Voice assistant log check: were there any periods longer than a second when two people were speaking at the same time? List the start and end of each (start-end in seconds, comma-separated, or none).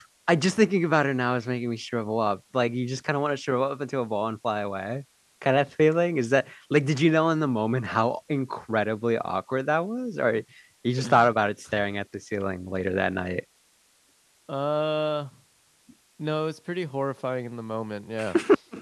none